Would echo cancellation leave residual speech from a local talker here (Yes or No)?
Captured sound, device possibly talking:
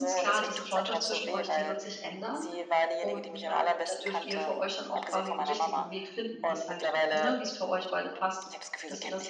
Yes